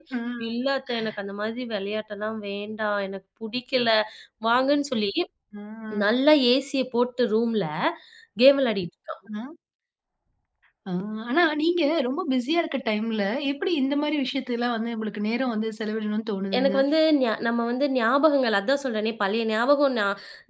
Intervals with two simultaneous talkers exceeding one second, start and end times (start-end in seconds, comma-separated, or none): none